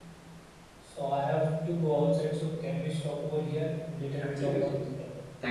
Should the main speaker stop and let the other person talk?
Yes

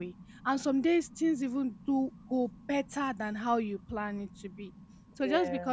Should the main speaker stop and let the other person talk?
No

